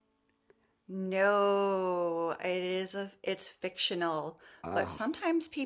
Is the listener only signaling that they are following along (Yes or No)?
Yes